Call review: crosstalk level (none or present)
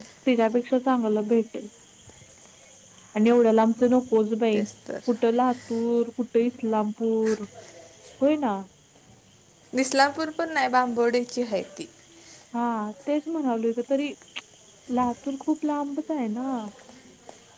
none